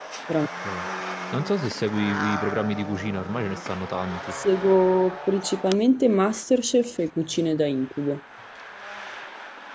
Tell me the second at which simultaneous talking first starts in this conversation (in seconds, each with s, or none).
none